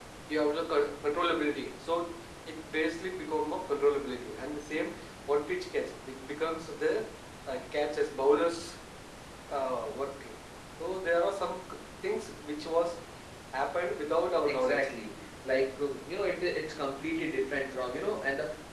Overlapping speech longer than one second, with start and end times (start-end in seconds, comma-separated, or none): none